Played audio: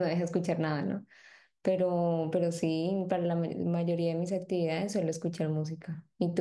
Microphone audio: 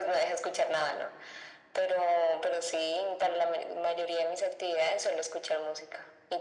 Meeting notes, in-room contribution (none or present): none